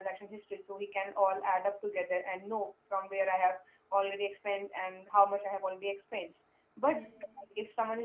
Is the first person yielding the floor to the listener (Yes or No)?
No